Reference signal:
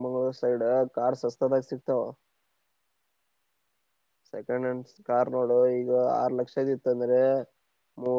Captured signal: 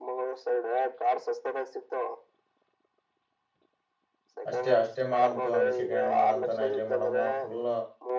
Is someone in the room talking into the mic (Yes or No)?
Yes